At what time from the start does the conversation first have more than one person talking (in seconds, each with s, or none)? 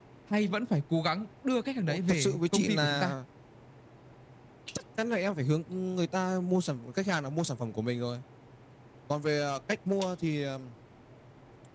1.9 s